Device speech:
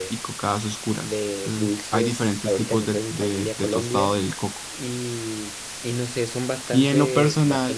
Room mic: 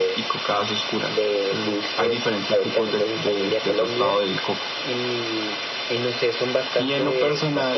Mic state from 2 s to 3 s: echo only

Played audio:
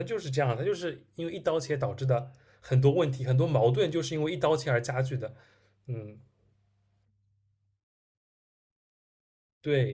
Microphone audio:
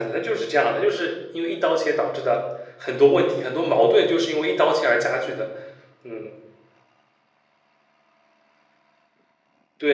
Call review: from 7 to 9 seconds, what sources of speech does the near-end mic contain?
neither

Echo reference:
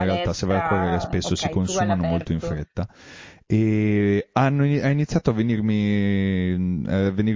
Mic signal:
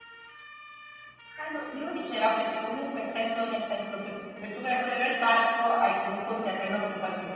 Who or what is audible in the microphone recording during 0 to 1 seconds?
neither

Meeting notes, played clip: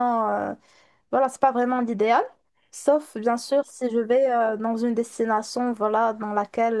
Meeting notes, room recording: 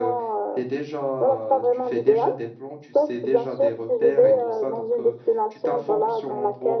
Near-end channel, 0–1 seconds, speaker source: both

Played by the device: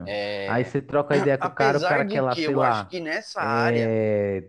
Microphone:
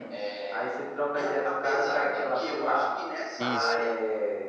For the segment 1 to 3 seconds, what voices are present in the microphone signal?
echo only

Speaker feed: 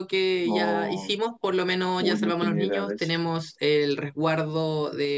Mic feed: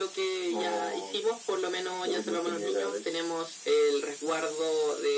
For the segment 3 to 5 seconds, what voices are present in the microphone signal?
echo only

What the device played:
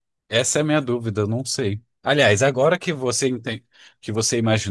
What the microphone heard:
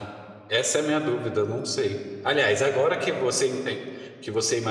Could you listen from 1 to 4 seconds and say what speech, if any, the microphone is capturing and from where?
echo only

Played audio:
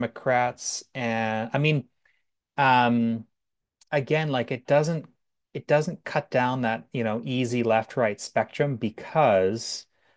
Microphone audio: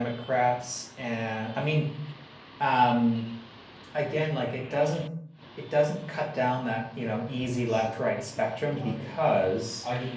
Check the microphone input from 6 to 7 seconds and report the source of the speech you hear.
echo only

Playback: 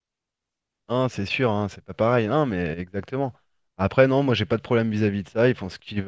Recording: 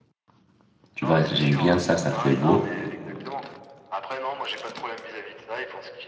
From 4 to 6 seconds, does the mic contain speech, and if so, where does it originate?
echo only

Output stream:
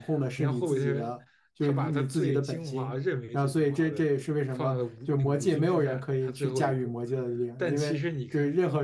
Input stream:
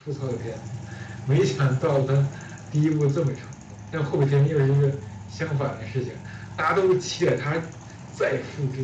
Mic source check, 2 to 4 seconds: user only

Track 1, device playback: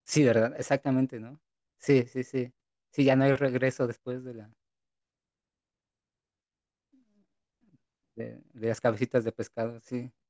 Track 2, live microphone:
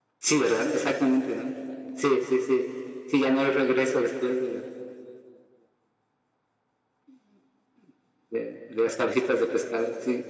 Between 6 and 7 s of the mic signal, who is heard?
neither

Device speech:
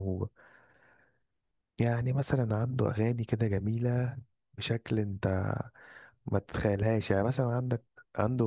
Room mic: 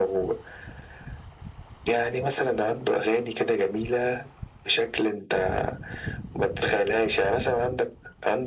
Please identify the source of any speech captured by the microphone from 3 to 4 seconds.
echo only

